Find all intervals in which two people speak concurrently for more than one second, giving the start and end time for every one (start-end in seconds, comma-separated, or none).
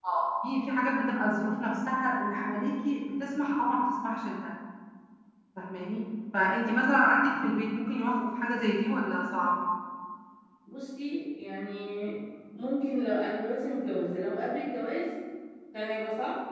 none